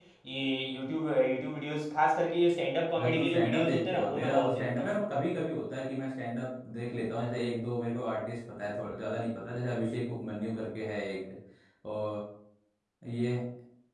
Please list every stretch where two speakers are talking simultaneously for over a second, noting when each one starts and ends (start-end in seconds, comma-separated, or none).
3.0-4.9